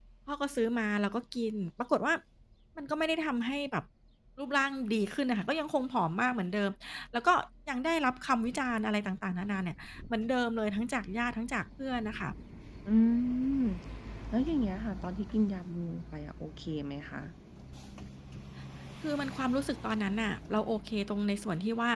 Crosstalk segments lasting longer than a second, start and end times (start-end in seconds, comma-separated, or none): none